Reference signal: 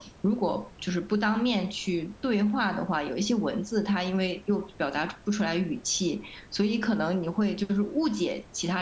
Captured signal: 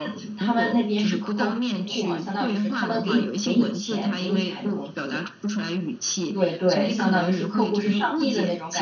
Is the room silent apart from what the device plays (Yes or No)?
No